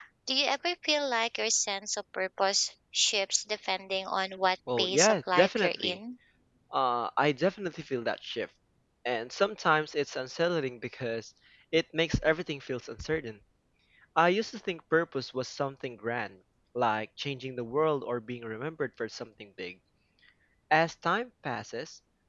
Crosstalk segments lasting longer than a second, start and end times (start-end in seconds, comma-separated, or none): 4.8-6.0